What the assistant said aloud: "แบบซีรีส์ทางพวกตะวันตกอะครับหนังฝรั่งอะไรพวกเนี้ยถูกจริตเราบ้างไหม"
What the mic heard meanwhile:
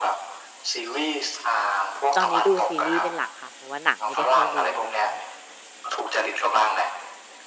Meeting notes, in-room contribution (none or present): present